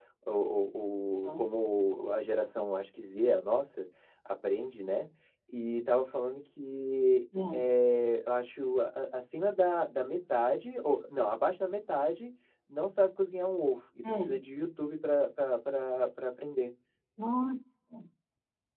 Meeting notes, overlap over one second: none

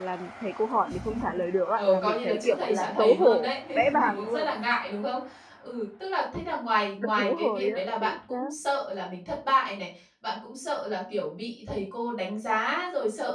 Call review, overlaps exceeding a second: present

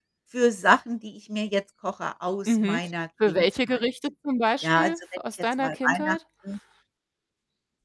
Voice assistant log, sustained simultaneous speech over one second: present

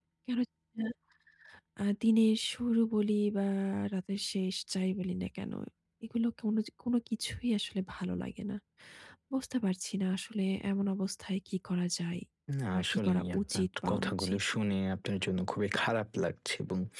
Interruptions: present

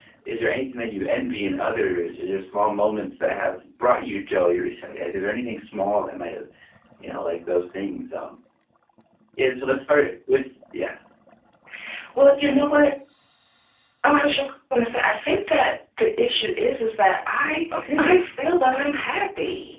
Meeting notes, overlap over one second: none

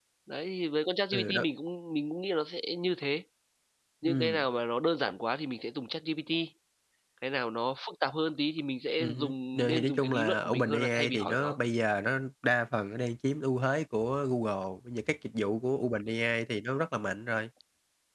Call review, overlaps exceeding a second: present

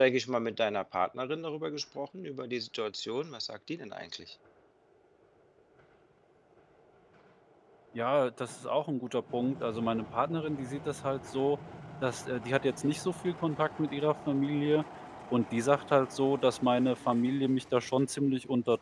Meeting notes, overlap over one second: none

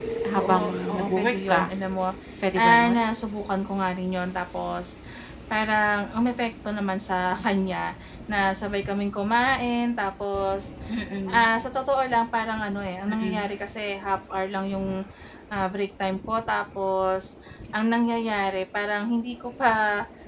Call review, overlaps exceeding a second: present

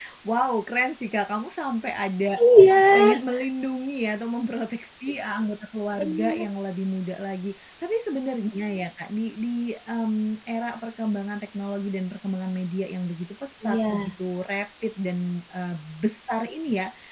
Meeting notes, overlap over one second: none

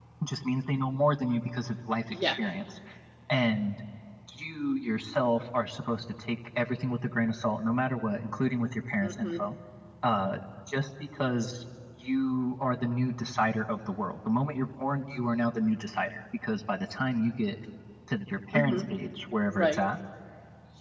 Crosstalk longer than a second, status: none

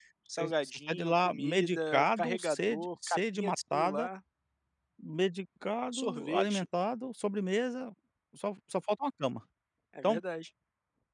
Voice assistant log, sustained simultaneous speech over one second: present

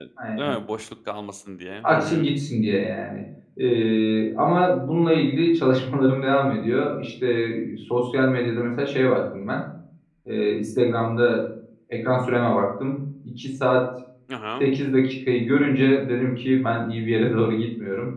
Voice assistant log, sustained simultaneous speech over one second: none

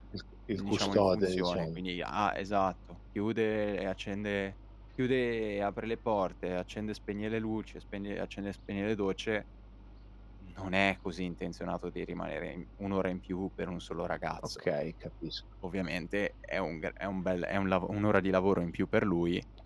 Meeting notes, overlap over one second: present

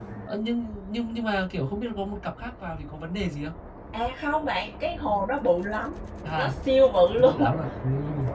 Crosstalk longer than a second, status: none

